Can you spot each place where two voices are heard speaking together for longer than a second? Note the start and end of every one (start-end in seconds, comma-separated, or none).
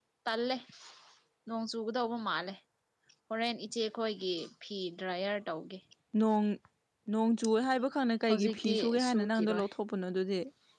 8.3-9.6